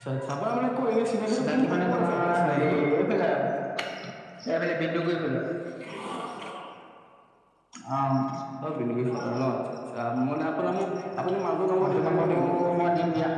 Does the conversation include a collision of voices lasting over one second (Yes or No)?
Yes